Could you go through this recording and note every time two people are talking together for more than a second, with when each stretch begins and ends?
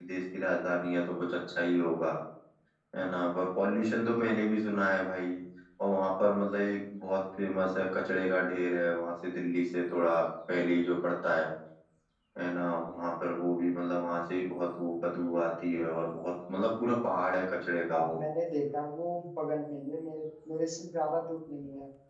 none

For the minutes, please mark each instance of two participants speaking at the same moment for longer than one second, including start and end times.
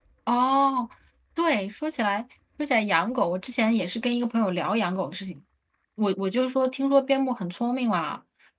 none

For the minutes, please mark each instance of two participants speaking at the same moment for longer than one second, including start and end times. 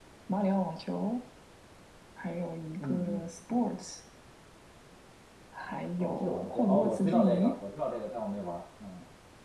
6.0-7.5

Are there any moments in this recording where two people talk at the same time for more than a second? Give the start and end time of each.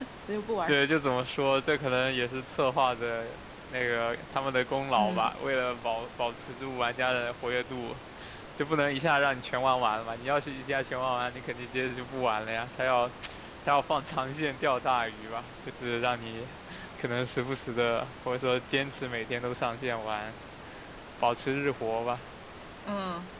none

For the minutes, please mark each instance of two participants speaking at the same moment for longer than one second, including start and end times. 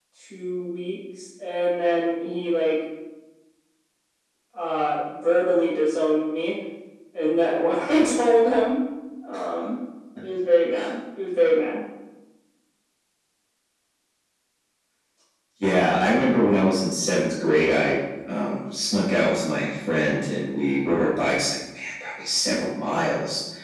none

